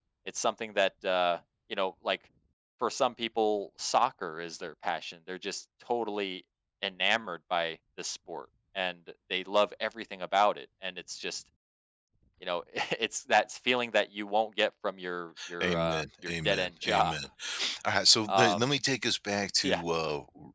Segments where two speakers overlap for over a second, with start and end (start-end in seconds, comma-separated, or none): 15.6-17.1